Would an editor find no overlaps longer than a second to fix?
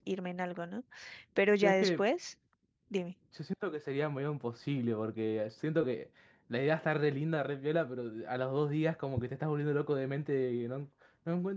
Yes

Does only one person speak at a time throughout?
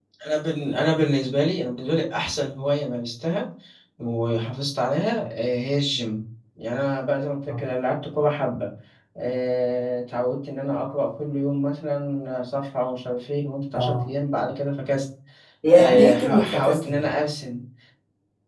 No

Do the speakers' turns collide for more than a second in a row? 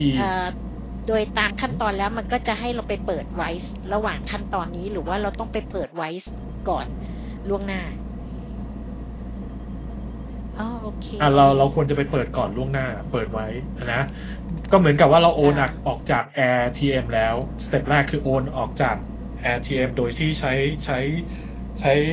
No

